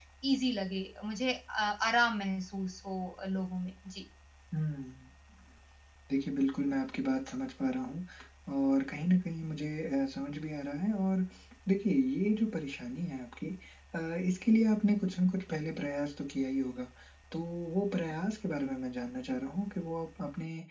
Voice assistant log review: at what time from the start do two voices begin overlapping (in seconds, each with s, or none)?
none